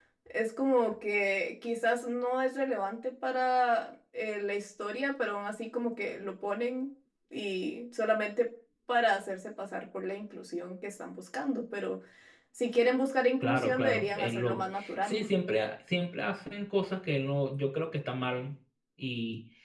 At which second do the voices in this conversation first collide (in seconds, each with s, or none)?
13.4 s